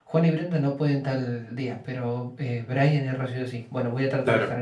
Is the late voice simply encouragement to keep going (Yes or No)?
Yes